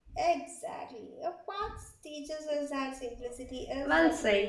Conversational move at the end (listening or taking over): taking over